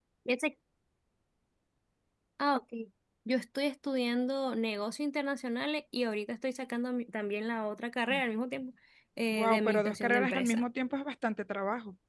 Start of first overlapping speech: 9 s

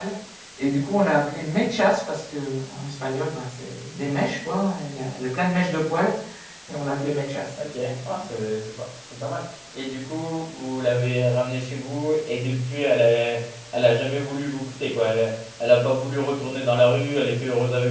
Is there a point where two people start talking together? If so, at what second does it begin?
none

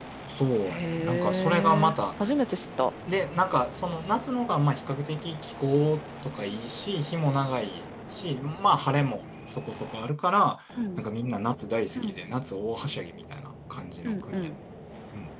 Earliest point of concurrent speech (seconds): 1 s

